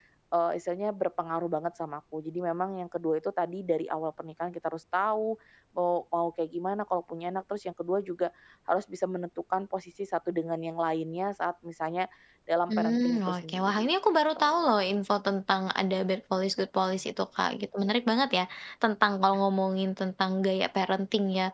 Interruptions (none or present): present